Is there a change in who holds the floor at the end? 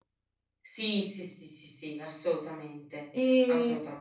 Yes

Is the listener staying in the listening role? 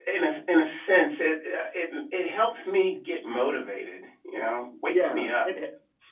No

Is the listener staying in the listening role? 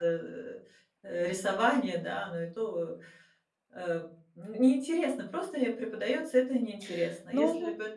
Yes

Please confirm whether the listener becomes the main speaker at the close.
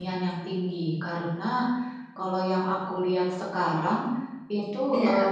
No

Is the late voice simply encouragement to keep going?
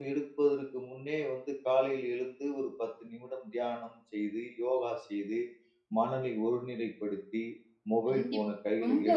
No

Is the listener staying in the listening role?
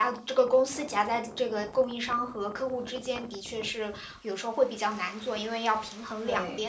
Yes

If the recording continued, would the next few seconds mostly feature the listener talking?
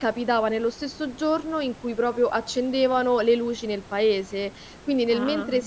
No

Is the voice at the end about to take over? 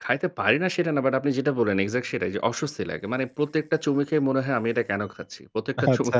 No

